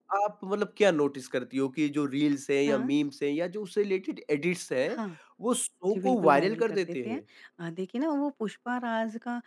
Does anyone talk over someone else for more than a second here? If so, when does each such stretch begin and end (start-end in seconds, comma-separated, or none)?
5.9-7.2